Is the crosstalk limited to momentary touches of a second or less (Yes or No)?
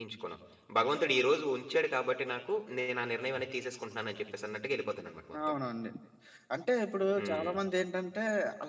Yes